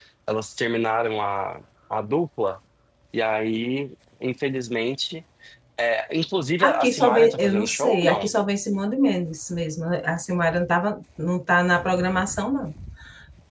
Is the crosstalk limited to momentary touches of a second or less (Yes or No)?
No